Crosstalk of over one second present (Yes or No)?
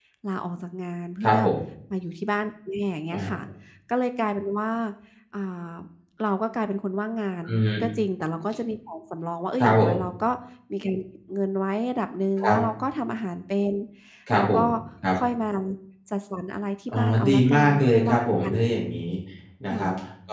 Yes